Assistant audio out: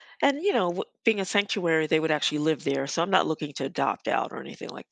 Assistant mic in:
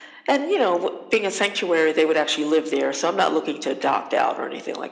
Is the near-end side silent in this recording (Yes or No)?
Yes